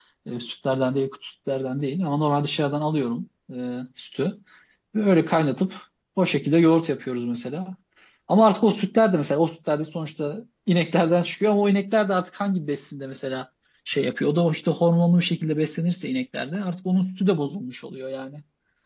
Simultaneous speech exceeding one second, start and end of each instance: none

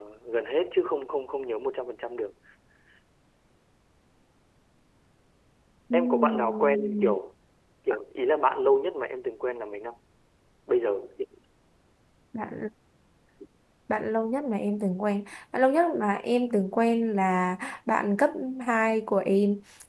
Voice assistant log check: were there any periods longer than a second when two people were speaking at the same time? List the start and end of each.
5.9-7.1

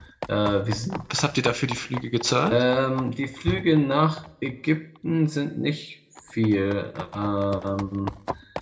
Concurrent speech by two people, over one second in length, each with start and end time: none

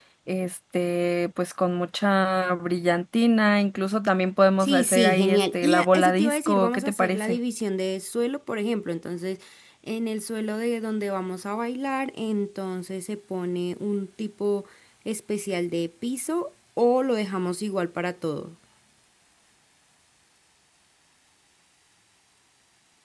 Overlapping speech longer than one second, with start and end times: 4.6-7.4

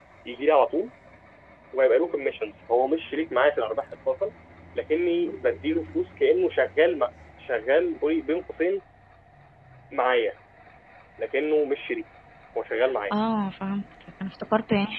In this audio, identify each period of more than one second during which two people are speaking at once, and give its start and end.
none

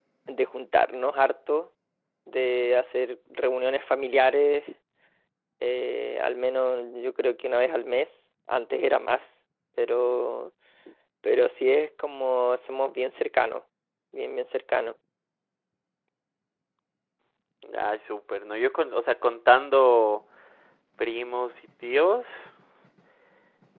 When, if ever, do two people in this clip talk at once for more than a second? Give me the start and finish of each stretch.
none

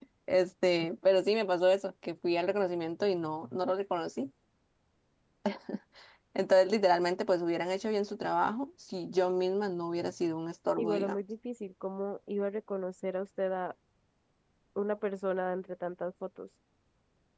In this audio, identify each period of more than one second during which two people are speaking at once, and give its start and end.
none

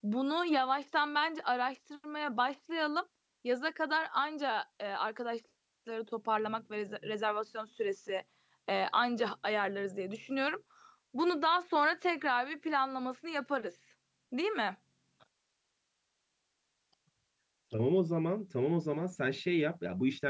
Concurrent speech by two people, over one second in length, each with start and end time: none

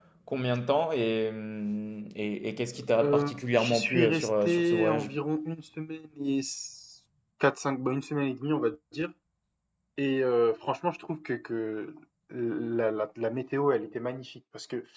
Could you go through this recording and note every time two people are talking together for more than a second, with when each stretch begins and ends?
3.0-5.1

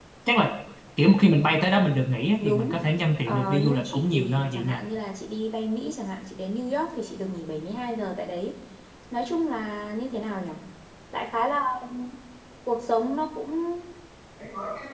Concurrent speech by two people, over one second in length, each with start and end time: 3.2-4.8

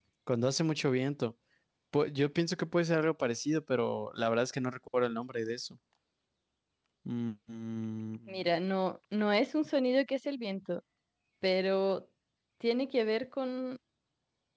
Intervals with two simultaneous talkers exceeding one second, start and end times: none

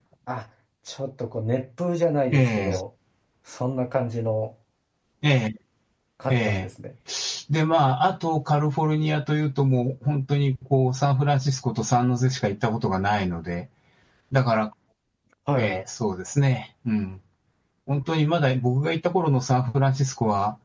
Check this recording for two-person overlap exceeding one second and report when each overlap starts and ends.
none

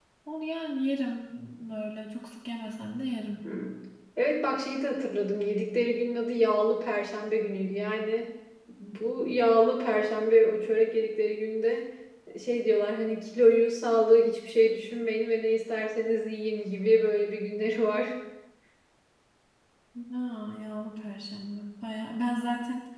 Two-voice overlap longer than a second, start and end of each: none

